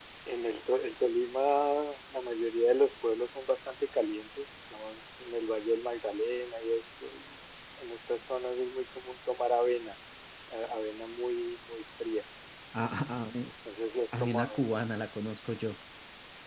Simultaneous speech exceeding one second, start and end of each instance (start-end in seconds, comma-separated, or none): none